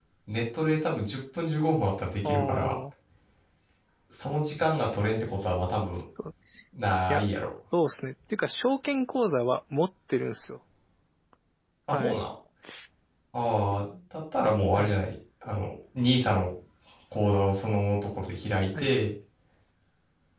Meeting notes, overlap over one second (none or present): none